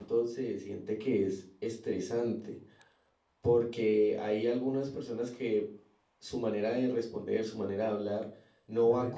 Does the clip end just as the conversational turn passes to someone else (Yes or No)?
No